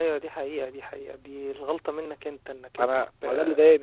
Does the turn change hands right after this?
Yes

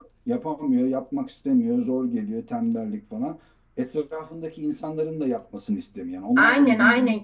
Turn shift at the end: Yes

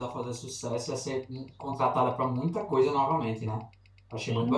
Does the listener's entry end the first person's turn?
Yes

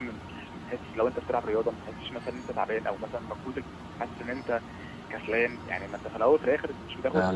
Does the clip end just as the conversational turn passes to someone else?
No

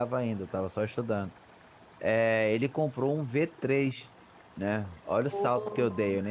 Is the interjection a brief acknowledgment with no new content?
Yes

